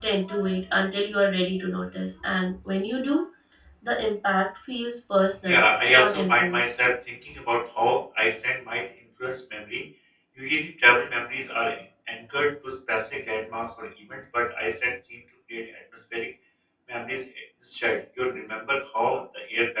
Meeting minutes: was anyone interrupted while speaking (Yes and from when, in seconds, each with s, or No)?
Yes, from 5.5 s